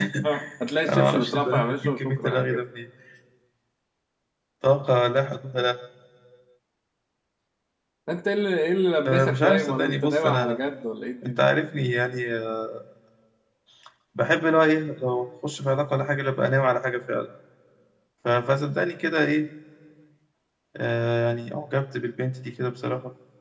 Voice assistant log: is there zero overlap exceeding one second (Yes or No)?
No